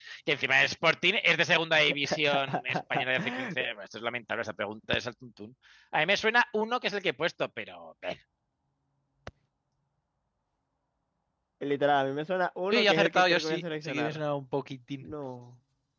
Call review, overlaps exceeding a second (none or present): present